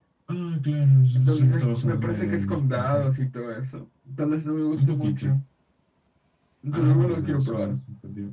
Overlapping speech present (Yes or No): Yes